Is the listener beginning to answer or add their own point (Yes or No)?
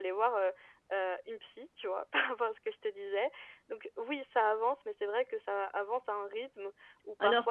No